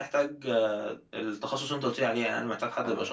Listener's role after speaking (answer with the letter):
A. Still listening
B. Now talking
B